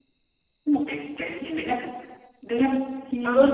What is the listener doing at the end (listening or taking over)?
taking over